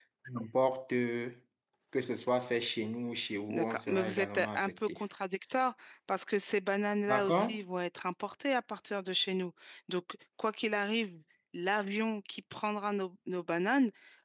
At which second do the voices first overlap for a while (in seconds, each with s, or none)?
3.5 s